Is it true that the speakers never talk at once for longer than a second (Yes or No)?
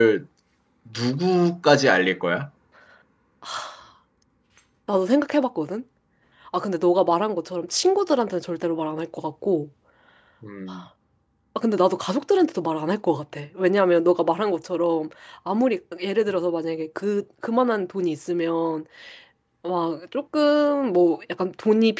Yes